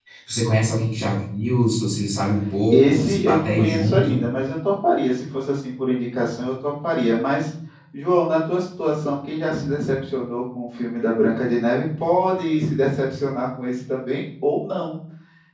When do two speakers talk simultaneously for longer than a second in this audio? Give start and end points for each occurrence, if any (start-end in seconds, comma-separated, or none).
2.7-4.2